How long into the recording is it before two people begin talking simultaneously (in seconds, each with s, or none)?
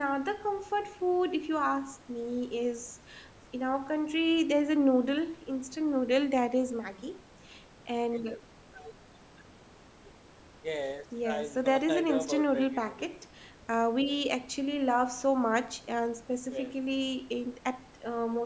11.2 s